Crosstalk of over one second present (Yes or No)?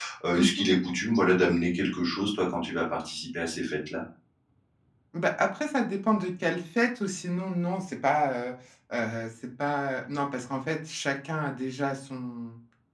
No